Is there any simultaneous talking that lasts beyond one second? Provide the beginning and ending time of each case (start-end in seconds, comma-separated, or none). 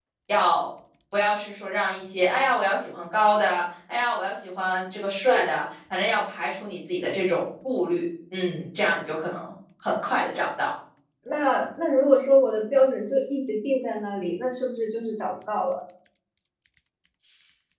none